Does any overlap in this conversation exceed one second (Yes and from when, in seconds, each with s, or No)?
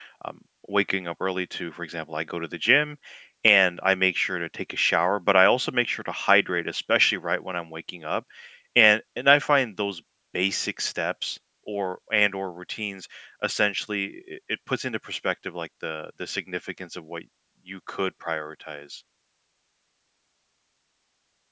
No